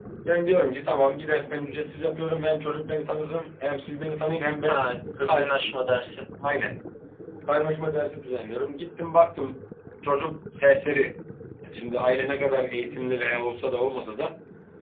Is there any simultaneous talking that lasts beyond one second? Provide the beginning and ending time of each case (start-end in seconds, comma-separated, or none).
4.7-5.9